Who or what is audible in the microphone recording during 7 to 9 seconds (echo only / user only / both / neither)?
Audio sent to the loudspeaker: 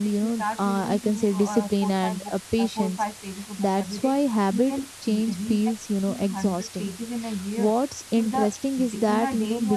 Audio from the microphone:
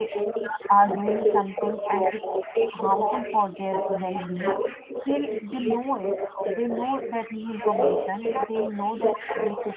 both